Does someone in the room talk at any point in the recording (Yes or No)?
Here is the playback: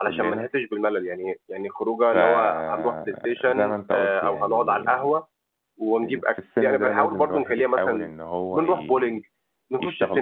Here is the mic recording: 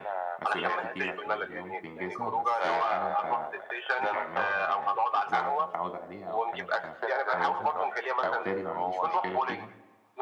Yes